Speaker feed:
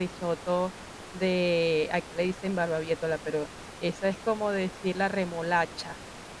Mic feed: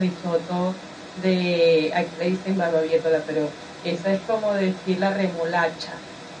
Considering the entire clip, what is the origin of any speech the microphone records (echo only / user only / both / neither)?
echo only